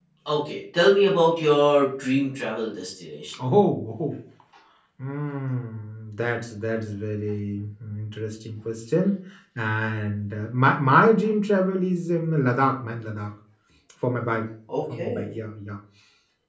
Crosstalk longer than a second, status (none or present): none